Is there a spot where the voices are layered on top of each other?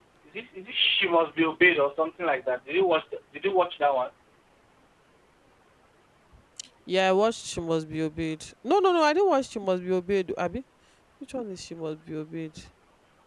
No

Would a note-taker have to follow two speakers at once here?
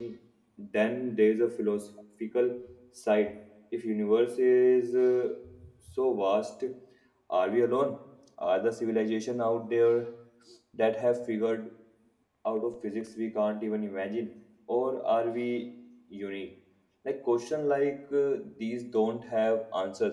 No

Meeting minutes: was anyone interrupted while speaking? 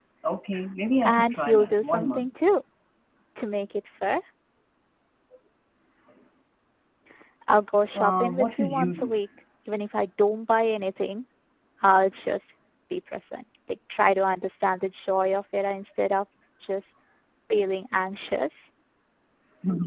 Yes, from 1.0 s

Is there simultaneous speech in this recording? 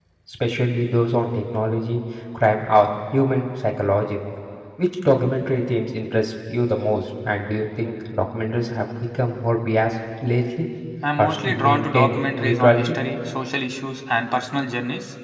Yes, from 11.2 s

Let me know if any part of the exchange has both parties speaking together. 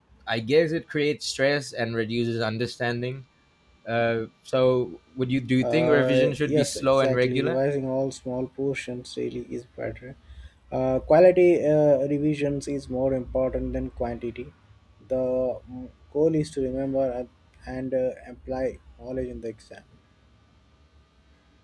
Yes, from 5.6 s

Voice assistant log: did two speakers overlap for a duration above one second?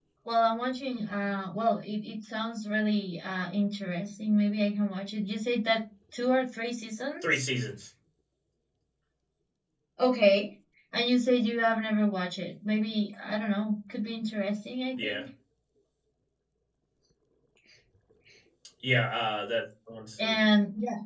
No

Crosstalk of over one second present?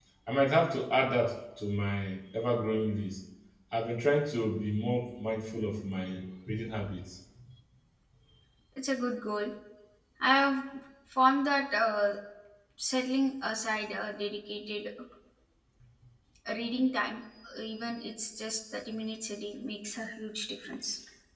No

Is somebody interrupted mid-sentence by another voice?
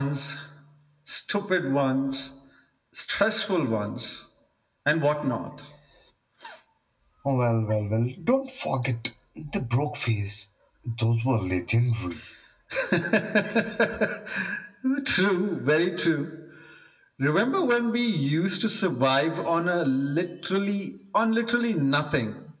No

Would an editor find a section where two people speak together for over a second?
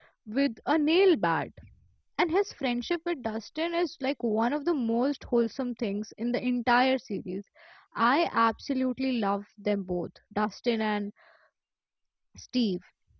No

